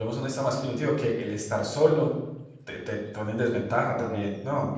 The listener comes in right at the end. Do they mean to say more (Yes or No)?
Yes